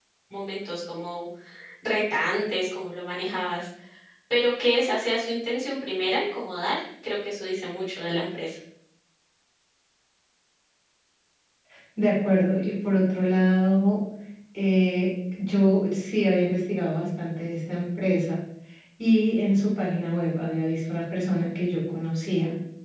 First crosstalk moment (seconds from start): none

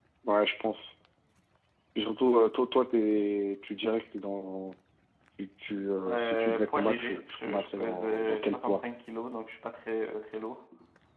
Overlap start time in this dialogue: 6.1 s

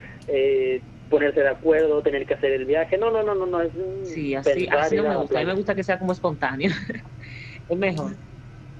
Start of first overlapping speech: 4.1 s

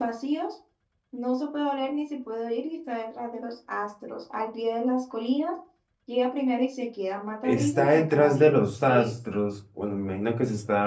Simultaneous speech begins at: 7.4 s

